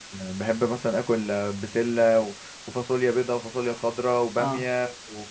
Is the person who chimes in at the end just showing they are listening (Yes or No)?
Yes